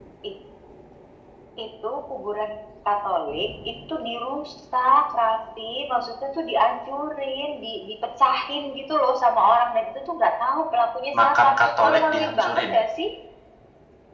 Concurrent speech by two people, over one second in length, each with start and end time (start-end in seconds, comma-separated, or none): 11.2-12.7